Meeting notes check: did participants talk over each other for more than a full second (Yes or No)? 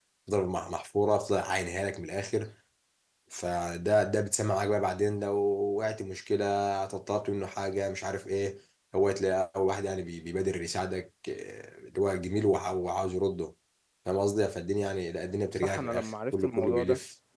Yes